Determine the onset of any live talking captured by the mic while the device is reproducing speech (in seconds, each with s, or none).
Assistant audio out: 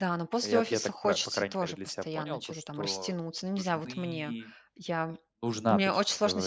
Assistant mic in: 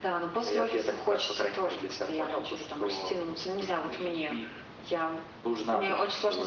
none